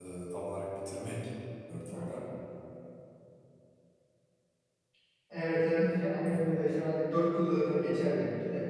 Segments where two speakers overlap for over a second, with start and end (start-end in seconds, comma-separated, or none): none